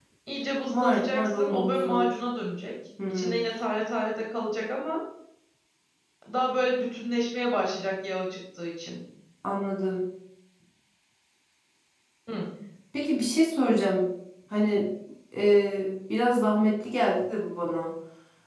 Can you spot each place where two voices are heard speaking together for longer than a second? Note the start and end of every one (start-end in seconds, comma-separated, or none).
0.7-2.0